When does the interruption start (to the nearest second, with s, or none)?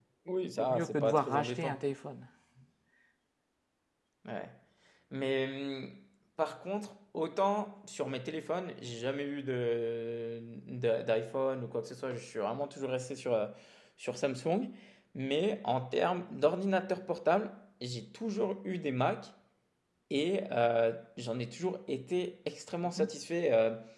1 s